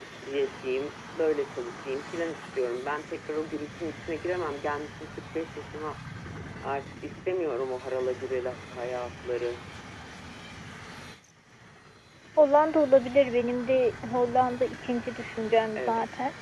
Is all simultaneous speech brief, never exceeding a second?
Yes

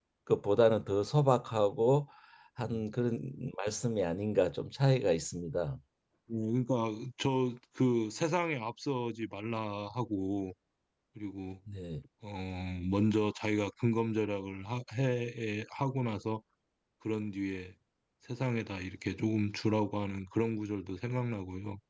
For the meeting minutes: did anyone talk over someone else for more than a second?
No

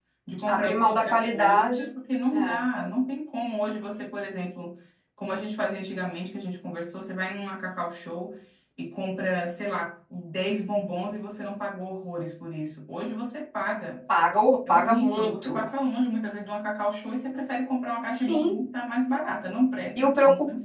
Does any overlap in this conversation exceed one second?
Yes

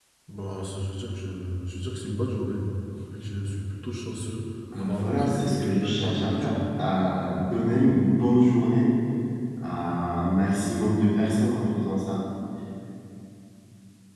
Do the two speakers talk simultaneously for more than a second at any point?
Yes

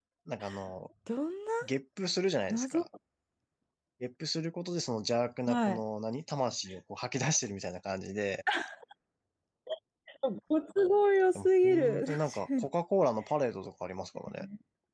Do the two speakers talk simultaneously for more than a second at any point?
Yes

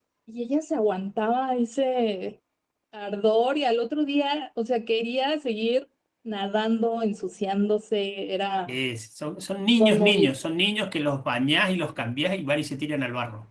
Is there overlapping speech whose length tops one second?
No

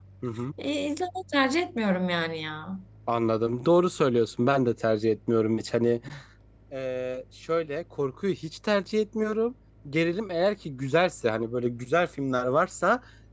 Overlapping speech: No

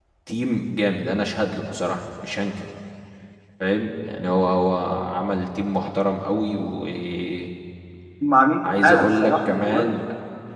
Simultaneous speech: Yes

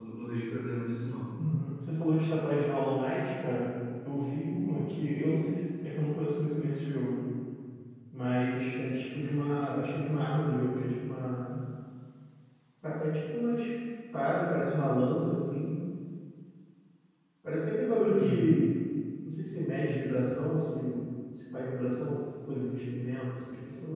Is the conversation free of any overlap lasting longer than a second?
Yes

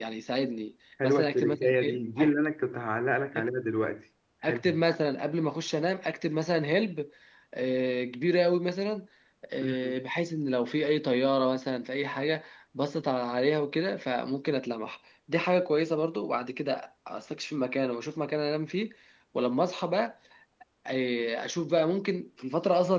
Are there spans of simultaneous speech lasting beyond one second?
Yes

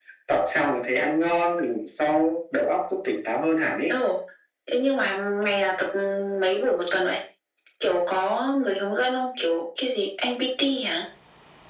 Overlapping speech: No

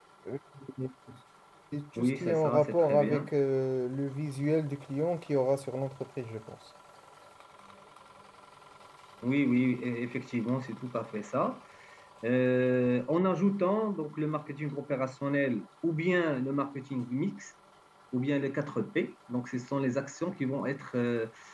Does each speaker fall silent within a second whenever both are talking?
No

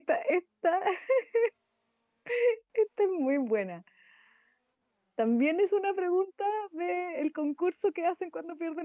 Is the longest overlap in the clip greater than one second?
No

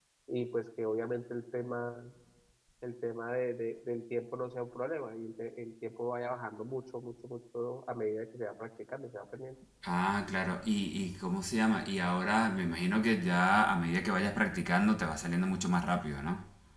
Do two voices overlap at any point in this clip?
No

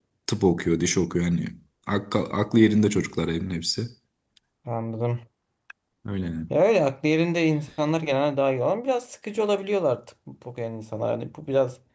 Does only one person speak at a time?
Yes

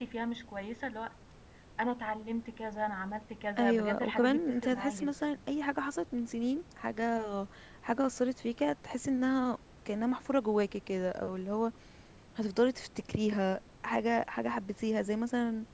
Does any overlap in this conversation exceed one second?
Yes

